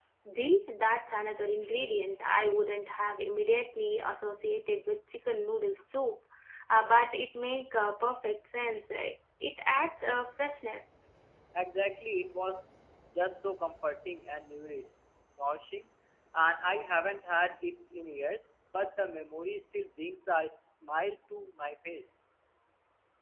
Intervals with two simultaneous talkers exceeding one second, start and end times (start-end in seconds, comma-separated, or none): none